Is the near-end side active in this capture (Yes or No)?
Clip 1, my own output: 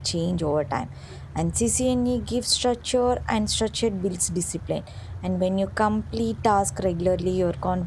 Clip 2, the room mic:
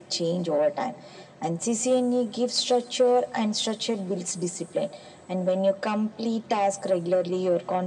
No